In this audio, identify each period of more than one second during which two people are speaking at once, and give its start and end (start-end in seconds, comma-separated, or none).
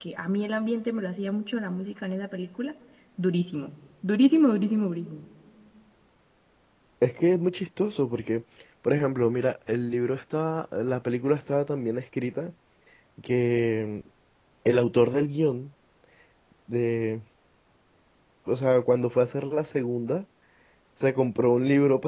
none